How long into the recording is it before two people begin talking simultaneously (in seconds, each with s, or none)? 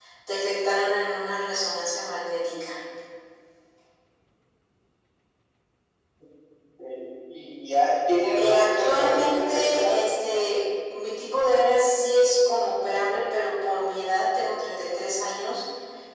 8.4 s